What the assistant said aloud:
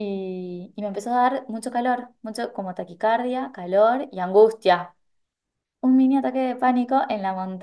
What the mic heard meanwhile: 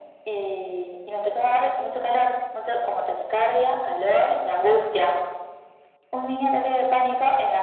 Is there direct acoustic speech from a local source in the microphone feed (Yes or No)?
No